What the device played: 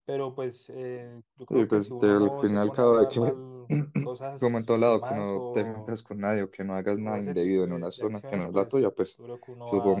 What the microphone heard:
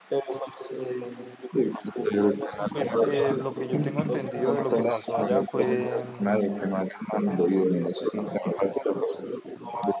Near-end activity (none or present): present